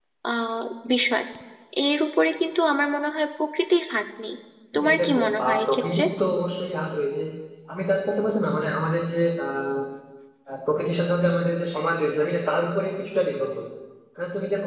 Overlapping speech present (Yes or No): Yes